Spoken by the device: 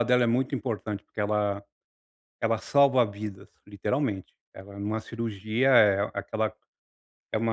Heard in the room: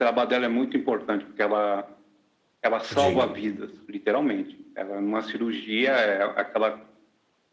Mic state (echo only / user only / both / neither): both